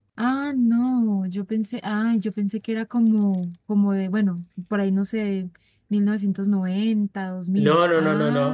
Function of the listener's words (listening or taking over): taking over